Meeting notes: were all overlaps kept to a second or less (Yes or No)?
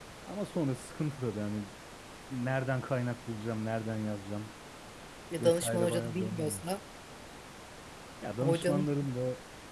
No